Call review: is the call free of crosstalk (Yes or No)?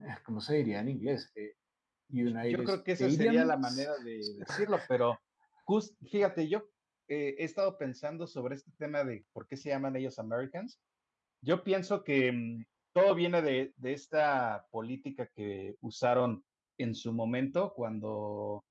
No